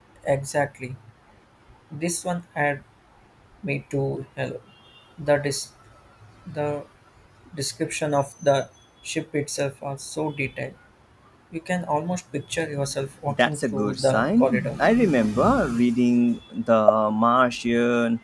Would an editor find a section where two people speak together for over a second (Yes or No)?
Yes